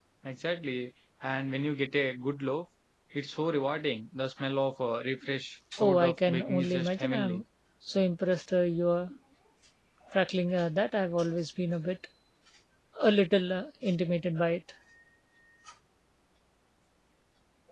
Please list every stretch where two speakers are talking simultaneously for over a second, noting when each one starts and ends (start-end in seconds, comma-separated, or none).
5.8-7.4